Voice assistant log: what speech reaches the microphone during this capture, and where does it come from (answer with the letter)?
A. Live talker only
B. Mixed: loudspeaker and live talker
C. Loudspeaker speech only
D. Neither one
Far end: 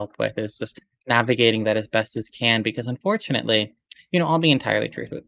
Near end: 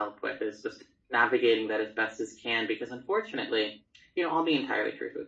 C